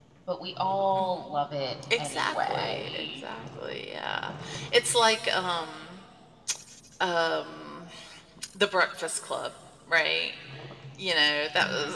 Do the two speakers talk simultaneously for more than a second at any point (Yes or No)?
Yes